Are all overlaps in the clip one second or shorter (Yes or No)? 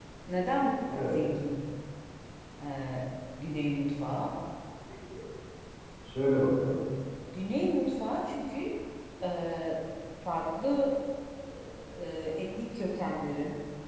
Yes